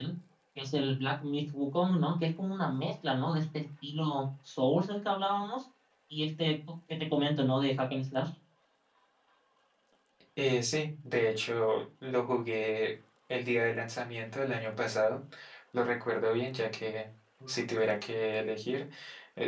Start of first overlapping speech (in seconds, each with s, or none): none